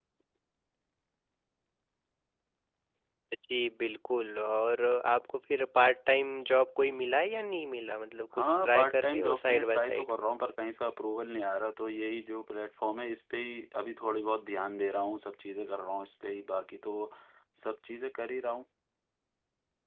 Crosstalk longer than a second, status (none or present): present